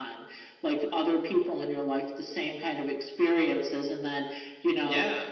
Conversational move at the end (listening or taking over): listening